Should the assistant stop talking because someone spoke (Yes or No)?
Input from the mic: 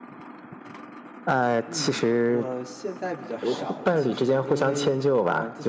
Yes